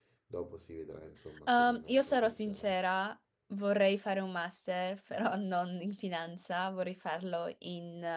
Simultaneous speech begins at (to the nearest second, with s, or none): 1 s